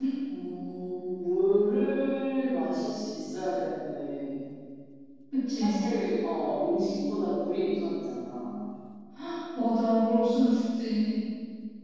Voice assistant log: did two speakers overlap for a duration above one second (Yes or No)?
No